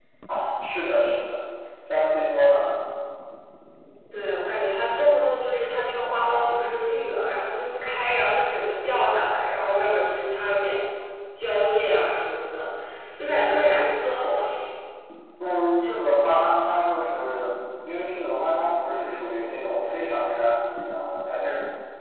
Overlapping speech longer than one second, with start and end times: none

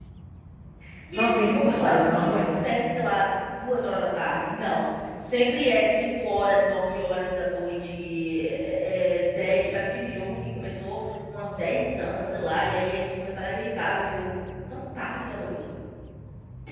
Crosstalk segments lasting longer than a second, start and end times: 1.1-2.6

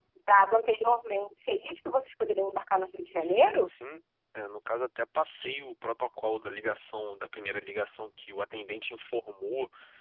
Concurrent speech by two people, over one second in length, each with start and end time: none

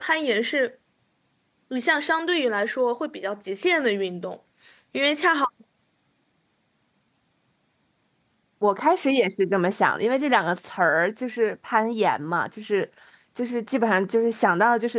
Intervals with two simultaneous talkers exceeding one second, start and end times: none

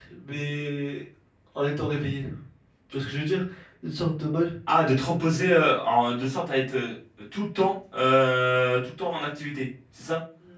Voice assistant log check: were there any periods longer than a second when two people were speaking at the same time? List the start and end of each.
none

